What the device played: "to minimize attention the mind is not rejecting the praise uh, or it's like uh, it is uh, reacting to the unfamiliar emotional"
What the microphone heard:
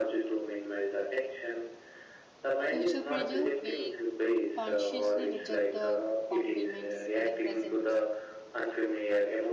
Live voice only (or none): future pressure, we consciously reject the compliments in the present